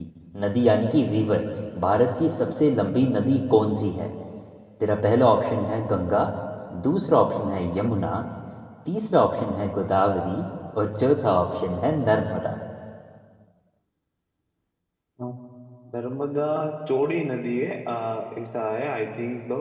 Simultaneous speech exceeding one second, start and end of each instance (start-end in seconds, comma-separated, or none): none